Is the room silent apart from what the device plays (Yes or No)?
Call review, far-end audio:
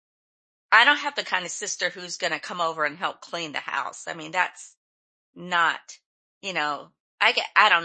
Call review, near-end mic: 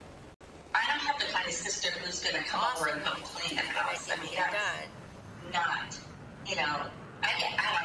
No